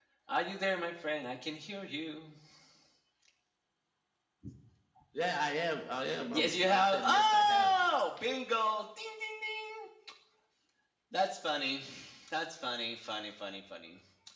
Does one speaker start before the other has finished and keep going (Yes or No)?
Yes